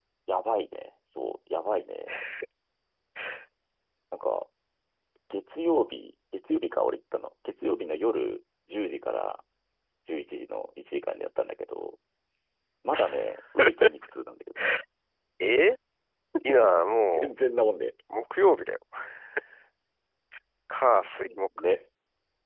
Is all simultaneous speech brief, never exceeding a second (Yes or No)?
Yes